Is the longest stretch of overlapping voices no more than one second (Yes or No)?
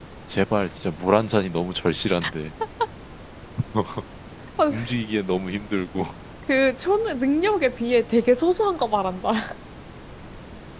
Yes